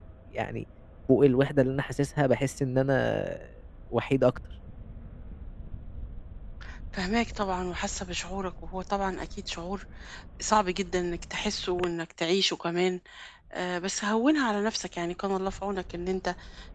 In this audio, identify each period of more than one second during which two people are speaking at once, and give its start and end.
none

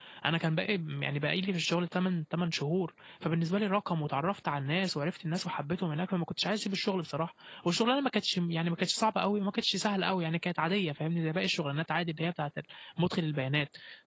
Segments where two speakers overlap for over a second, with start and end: none

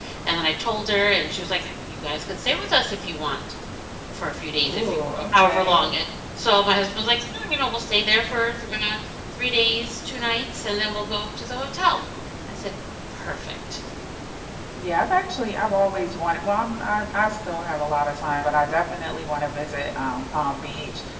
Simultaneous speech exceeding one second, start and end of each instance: 4.6-5.9

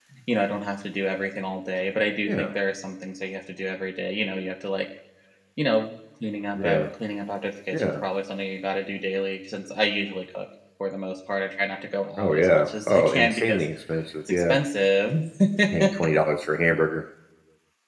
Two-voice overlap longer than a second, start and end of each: 12.2-13.6

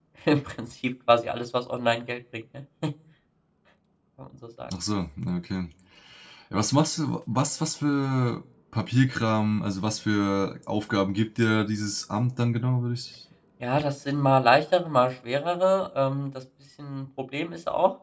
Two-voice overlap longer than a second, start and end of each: none

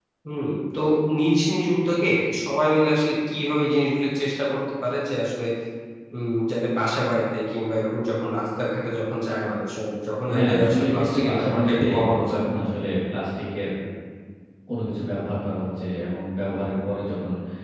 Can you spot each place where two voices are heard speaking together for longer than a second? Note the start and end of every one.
10.3-12.4

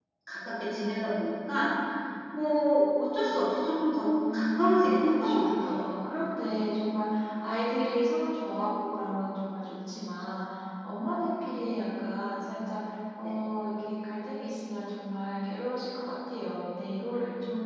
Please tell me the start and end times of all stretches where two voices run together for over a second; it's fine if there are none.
4.3-5.9

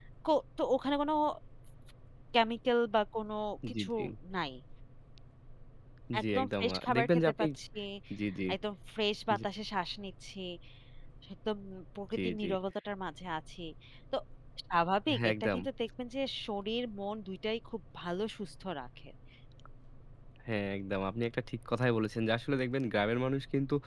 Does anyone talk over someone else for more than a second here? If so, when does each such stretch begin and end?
6.2-7.4

